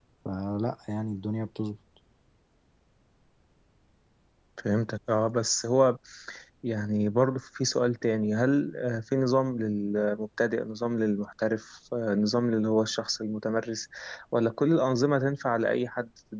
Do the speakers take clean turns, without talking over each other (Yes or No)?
Yes